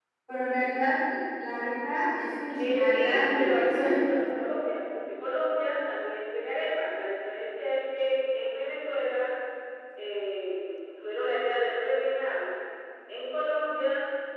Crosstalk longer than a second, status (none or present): present